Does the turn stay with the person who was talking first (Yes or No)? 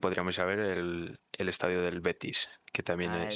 No